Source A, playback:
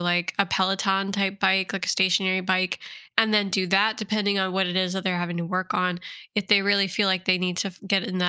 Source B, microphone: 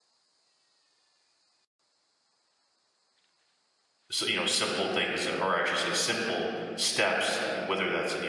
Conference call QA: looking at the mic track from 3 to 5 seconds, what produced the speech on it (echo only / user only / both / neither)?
user only